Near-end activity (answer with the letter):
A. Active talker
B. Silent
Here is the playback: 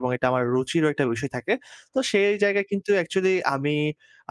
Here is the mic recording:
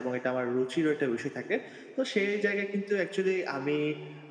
B